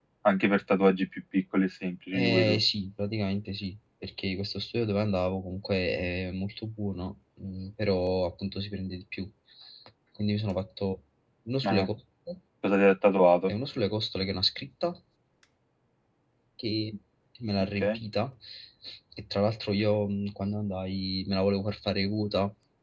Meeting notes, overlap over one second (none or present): none